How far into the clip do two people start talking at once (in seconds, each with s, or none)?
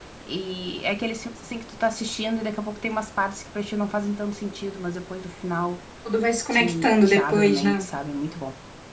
6.5 s